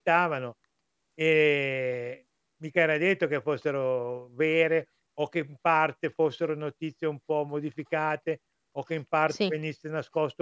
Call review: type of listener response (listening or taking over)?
listening